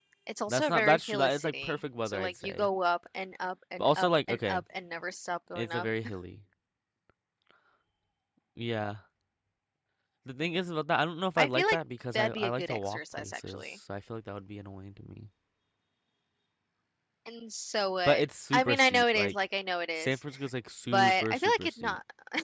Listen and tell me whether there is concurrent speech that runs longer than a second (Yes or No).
Yes